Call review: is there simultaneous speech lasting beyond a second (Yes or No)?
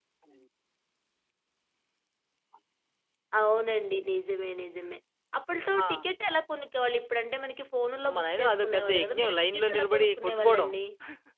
Yes